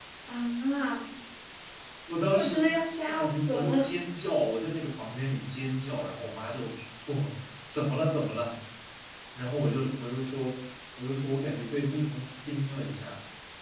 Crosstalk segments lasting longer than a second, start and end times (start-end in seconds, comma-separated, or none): 2.3-3.9